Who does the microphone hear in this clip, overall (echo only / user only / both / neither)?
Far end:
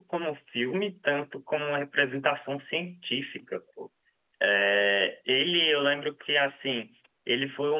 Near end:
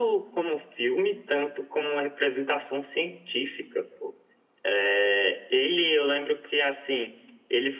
echo only